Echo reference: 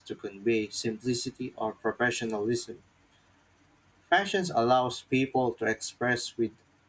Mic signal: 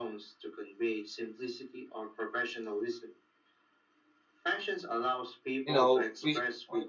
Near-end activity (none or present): present